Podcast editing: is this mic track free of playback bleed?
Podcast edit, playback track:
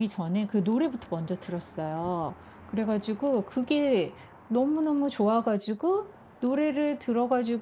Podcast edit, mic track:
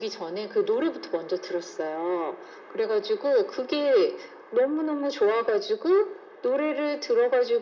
No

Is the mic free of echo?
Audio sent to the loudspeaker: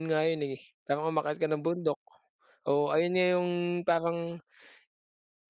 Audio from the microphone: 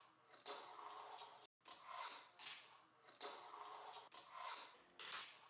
Yes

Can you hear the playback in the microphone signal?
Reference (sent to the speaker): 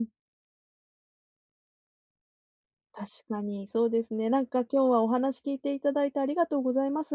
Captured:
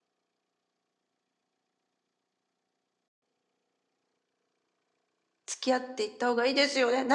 No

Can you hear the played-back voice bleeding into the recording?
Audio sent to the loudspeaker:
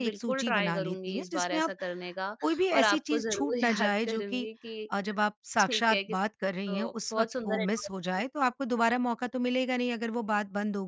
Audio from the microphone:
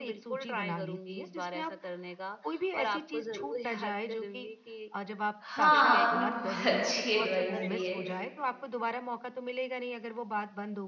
Yes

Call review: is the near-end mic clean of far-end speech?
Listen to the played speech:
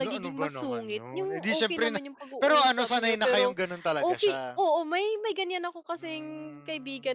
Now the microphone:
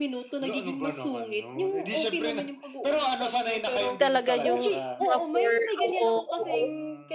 No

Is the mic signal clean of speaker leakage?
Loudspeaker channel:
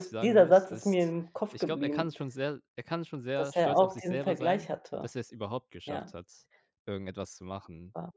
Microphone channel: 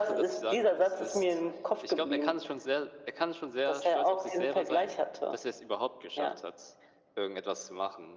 No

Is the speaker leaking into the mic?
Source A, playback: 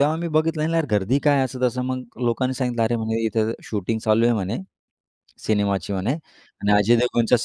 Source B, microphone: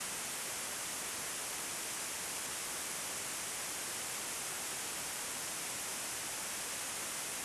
No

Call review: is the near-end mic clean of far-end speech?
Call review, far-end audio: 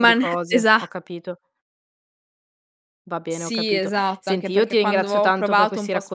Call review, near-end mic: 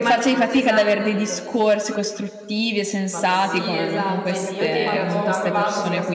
No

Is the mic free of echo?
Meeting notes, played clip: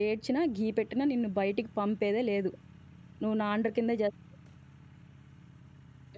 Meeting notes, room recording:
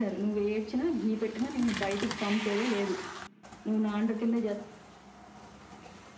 No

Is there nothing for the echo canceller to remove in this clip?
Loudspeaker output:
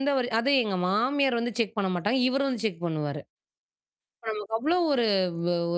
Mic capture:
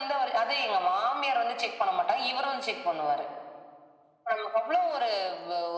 No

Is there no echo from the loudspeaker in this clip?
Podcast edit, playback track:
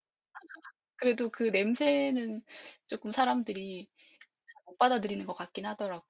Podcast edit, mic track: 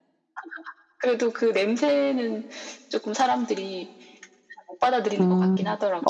No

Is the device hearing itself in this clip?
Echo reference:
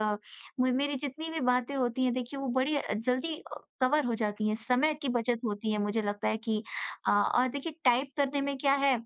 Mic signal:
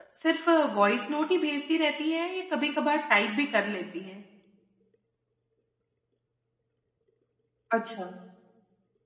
No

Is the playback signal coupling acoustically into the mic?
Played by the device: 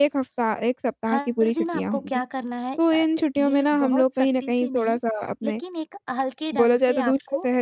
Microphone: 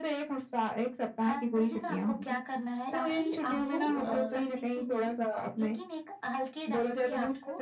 Yes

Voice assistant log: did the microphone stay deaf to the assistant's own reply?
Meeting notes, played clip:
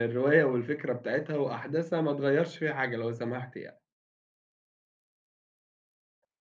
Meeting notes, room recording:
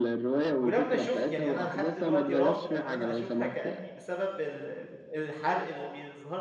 No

